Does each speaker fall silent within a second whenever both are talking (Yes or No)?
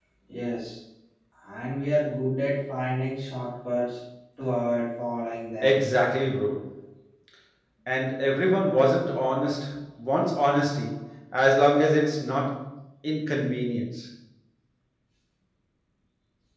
Yes